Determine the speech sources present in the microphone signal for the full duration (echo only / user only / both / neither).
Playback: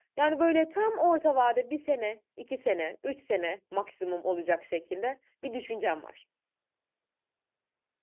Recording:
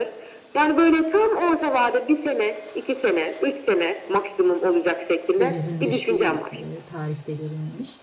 both